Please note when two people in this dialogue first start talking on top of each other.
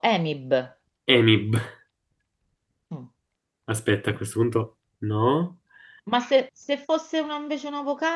none

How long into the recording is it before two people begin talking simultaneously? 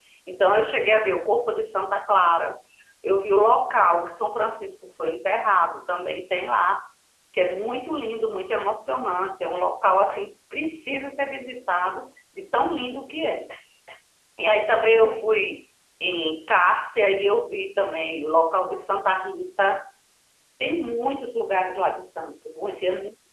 none

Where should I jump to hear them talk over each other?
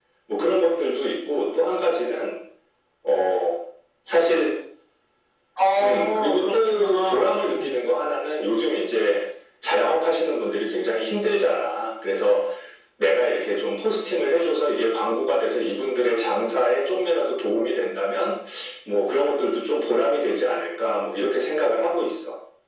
5.8 s

